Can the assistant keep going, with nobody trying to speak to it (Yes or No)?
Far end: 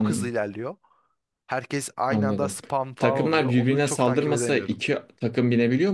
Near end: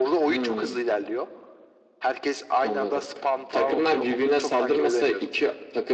Yes